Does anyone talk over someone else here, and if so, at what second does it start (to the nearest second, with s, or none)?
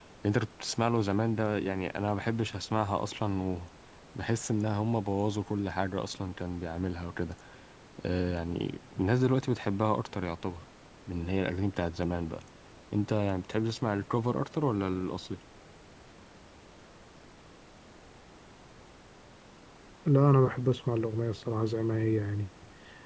none